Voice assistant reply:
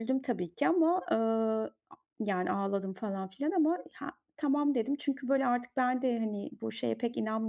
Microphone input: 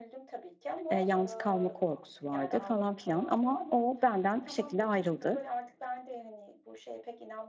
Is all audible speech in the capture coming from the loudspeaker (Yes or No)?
No